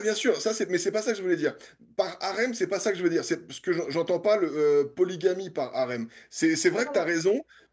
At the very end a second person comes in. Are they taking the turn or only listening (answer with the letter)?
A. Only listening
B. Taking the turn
A